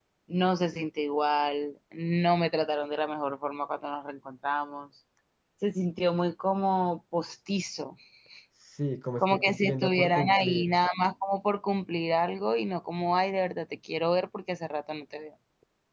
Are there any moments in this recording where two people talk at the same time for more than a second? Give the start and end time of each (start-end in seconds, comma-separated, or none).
9.2-10.8